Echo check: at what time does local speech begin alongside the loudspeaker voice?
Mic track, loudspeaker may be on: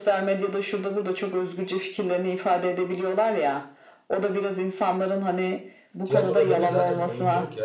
6.0 s

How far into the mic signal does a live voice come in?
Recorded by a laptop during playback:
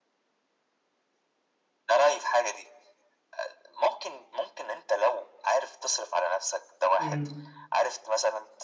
7.0 s

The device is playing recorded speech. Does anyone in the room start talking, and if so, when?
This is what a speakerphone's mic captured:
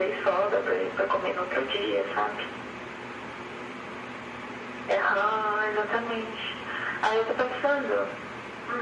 none

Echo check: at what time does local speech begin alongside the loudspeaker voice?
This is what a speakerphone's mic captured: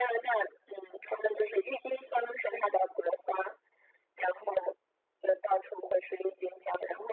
none

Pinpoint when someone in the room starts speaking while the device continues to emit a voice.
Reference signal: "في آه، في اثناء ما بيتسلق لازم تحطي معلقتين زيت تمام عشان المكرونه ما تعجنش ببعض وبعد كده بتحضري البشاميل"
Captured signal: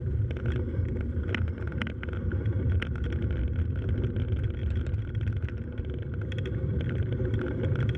none

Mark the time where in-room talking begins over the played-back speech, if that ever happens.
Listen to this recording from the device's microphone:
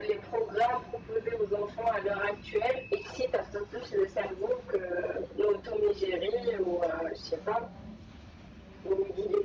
none

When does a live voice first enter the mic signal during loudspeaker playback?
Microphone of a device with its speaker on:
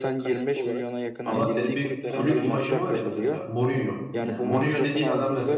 1.2 s

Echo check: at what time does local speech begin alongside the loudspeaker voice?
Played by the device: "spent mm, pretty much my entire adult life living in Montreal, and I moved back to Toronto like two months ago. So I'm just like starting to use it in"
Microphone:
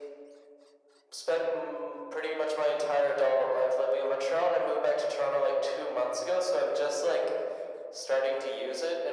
none

